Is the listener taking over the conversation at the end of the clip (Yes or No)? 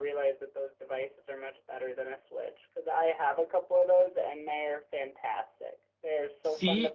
No